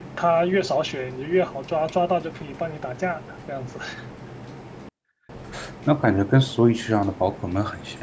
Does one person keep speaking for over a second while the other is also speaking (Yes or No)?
No